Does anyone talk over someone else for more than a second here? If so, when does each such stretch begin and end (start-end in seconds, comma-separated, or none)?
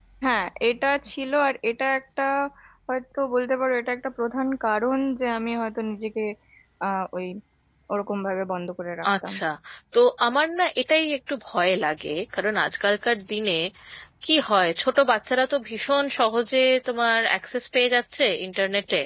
none